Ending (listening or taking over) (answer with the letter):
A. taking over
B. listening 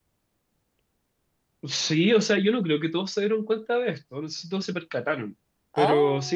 B